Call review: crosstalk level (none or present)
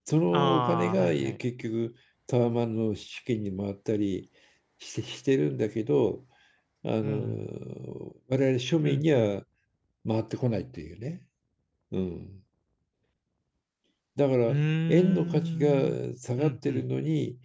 present